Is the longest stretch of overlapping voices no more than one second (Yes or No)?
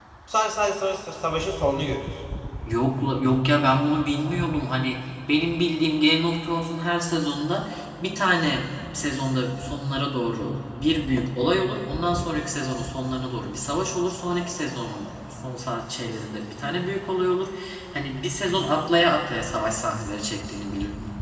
Yes